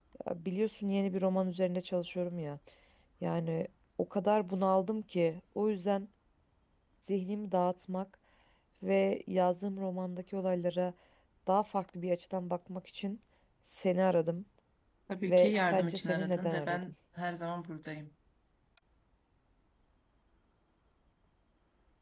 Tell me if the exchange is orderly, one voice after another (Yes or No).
No